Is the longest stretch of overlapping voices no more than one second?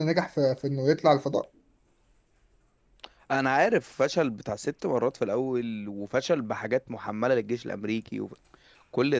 Yes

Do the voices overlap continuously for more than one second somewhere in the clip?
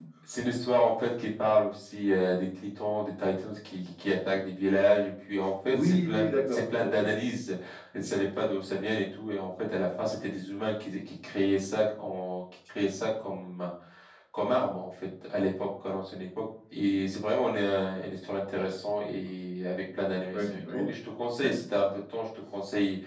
Yes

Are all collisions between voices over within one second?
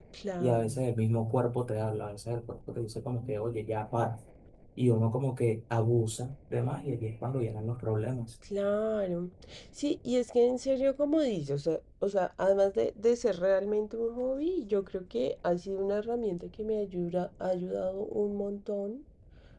Yes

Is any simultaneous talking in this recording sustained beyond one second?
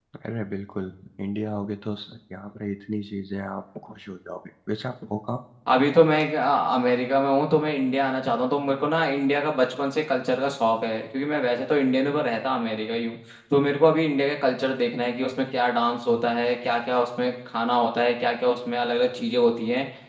No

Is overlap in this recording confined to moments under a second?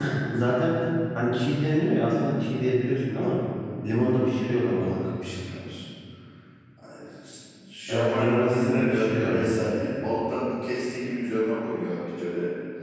No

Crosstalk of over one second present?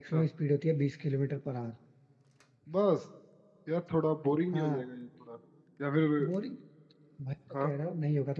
No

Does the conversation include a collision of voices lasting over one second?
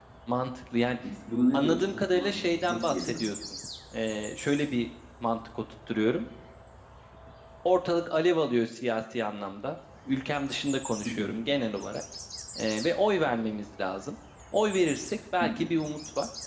Yes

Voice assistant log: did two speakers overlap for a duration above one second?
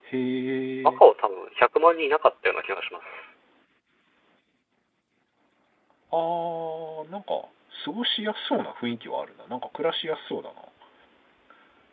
No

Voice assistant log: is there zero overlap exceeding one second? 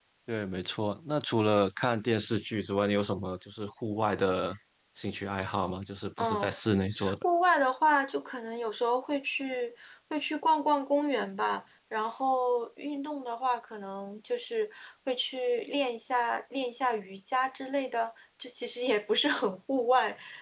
Yes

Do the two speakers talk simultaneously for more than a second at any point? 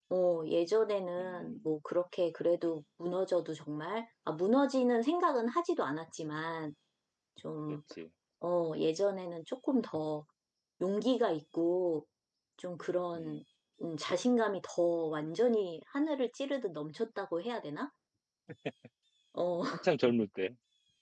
No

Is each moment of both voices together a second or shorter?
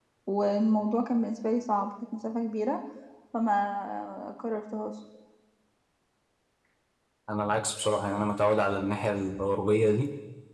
Yes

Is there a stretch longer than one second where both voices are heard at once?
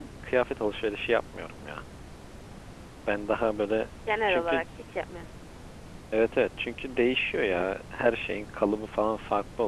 No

